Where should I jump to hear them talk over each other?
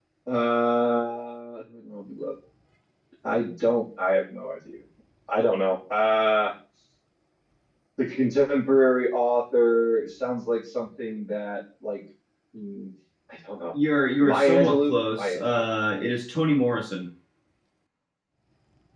14.2 s

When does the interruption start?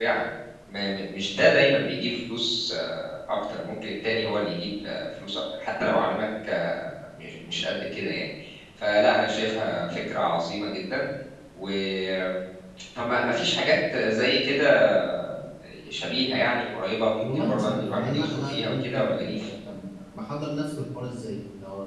17.2 s

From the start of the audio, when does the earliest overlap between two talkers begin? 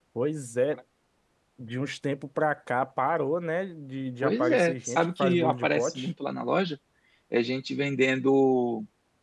4.2 s

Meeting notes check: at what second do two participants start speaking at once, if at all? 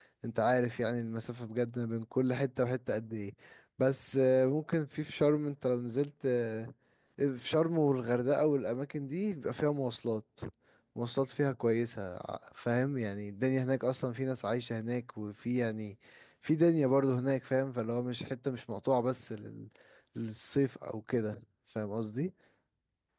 none

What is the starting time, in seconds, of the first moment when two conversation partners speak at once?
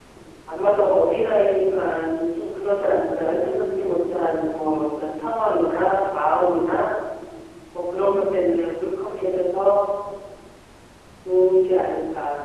3.2 s

